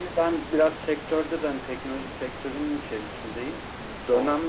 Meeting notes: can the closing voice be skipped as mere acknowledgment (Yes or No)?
Yes